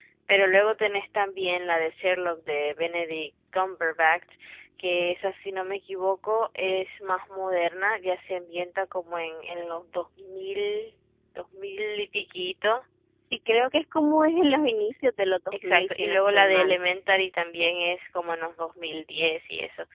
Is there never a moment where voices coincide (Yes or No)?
No